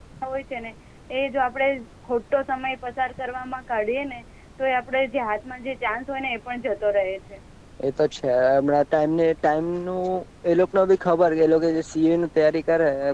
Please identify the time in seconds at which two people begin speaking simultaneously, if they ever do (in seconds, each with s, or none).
none